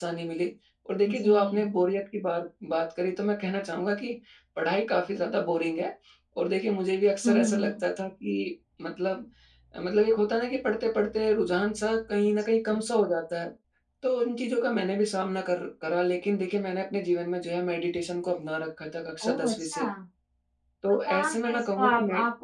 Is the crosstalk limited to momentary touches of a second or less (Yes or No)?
No